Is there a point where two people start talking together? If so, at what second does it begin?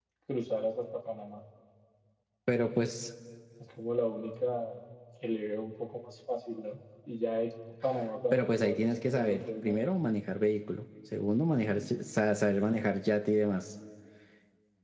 8.3 s

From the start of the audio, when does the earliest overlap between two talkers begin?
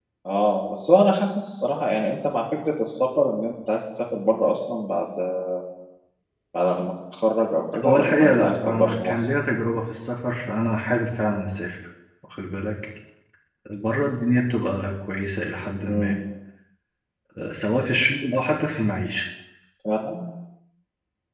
7.8 s

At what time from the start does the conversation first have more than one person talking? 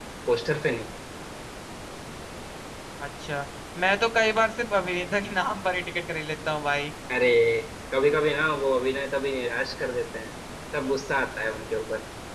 none

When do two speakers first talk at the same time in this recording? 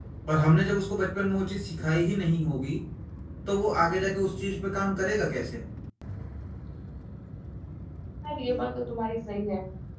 none

